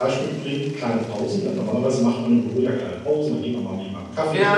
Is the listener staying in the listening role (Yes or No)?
No